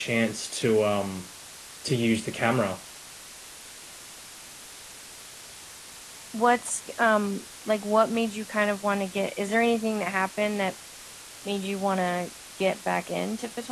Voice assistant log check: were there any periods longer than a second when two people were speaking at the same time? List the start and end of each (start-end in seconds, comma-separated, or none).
none